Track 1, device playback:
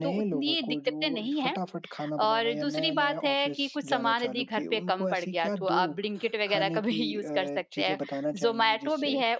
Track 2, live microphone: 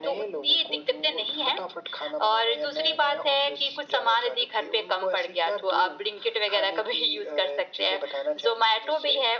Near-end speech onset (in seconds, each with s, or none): none